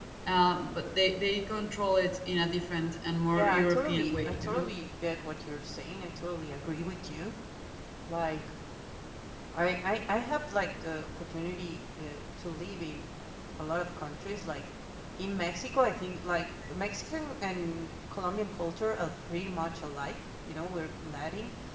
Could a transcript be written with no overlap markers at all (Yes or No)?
No